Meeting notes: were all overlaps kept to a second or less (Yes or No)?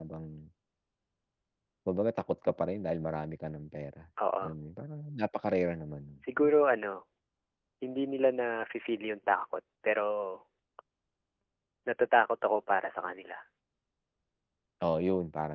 Yes